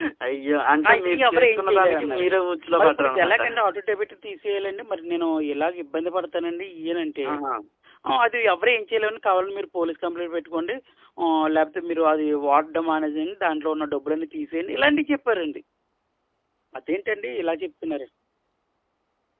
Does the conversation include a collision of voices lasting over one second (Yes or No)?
Yes